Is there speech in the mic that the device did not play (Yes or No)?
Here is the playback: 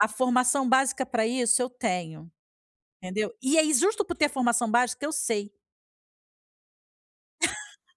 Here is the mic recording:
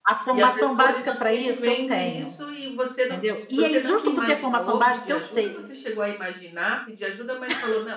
Yes